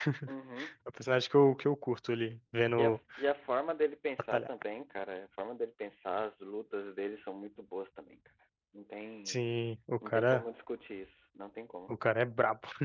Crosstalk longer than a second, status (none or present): none